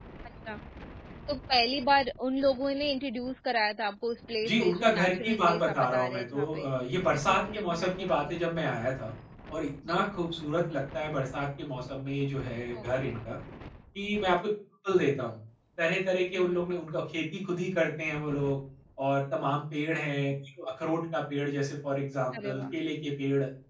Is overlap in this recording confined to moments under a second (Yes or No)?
No